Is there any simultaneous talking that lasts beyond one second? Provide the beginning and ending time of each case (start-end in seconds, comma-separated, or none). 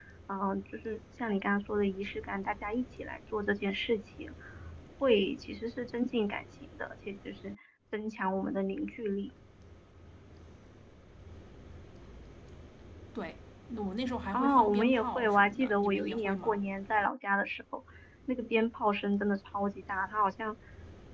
14.3-16.6